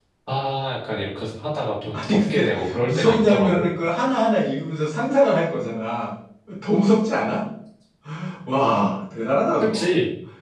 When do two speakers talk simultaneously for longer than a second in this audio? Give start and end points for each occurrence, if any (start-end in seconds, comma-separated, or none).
1.9-3.7